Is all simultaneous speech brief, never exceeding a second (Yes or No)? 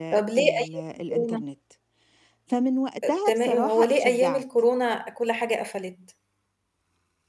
No